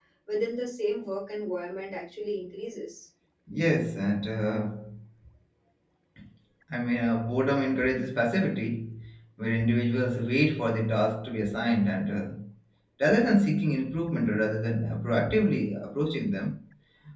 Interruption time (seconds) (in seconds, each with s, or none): none